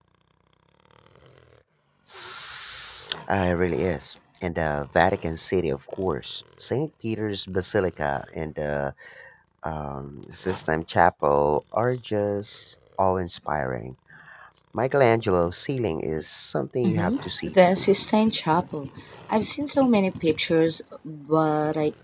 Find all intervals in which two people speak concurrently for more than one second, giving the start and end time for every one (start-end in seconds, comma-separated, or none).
16.8-18.1